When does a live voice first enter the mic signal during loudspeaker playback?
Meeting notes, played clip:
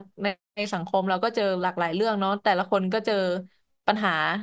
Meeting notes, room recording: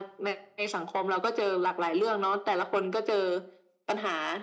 none

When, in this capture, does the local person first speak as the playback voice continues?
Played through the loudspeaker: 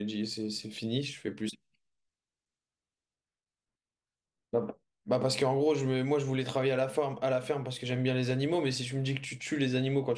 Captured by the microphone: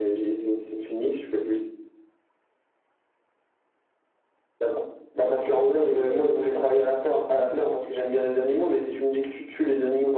5.3 s

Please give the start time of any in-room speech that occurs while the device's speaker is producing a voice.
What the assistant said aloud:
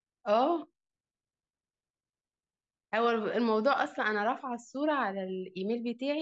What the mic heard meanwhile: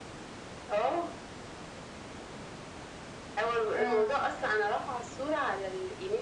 3.7 s

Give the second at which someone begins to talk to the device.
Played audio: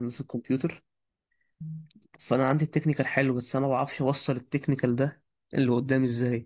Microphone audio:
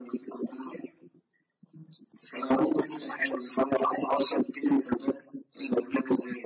none

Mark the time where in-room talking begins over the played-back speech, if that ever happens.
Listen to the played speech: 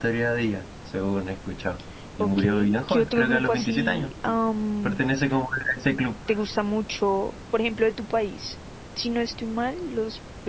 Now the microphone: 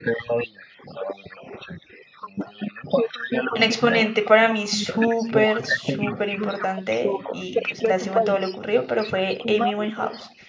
3.5 s

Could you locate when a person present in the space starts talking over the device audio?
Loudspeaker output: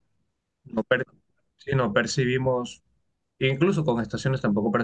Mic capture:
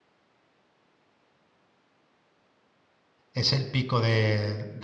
3.3 s

